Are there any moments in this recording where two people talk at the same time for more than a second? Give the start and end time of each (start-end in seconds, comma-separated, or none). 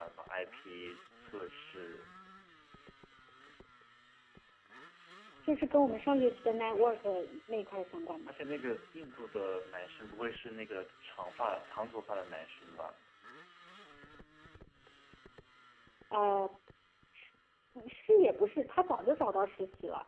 none